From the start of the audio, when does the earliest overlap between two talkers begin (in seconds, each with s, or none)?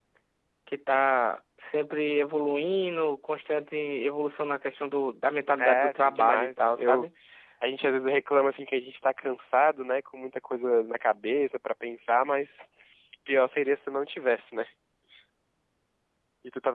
5.6 s